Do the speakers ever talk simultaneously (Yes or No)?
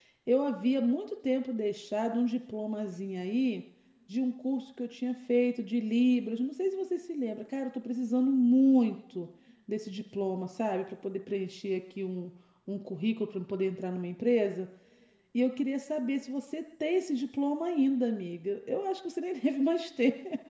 No